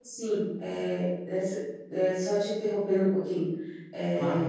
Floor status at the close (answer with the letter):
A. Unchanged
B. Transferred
A